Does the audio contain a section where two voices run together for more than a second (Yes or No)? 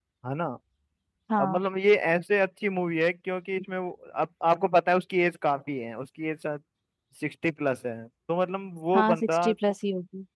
No